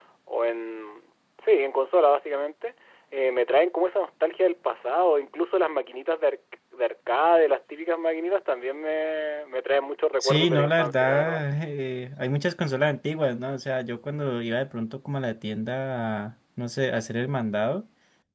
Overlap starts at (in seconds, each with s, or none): 10.2 s